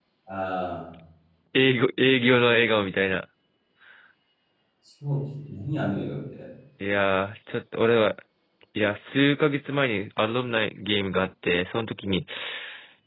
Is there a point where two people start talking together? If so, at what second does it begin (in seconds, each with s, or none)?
none